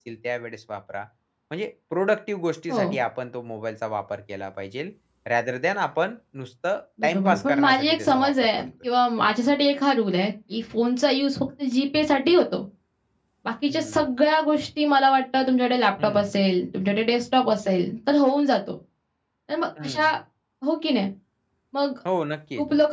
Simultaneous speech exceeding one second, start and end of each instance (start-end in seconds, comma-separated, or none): 7.0-8.6